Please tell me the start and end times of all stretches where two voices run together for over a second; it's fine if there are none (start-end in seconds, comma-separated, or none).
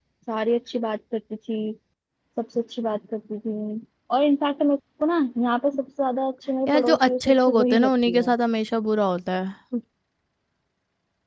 6.7-8.3